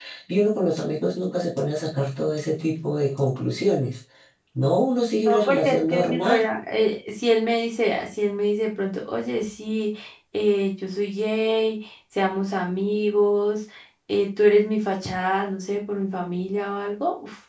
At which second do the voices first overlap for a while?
5.2 s

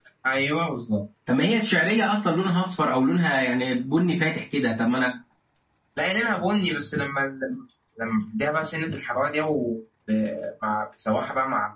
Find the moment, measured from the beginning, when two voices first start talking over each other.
none

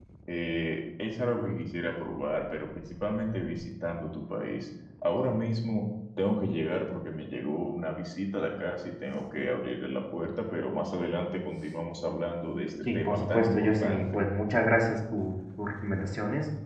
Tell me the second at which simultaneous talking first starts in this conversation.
12.8 s

